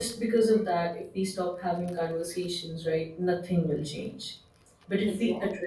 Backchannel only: Yes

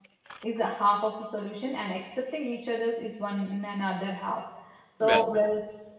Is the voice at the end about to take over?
No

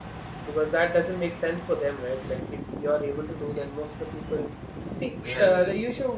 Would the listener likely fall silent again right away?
Yes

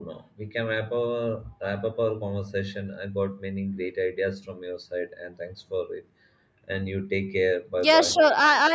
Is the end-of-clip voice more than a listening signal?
Yes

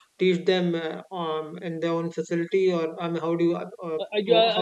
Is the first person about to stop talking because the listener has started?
Yes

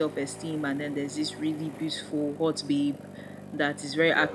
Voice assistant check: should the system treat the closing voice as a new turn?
No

